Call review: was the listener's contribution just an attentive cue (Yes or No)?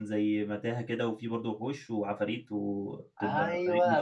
No